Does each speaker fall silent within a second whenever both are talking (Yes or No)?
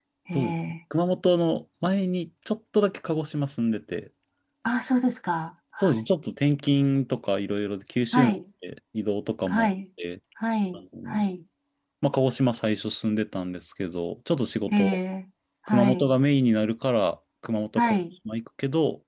Yes